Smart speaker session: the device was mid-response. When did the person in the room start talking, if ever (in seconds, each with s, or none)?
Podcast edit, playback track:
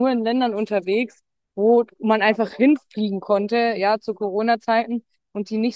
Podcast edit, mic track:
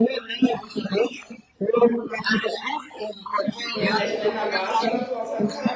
3.7 s